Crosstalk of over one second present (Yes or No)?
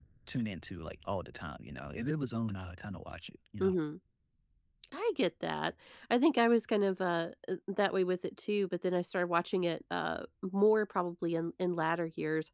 No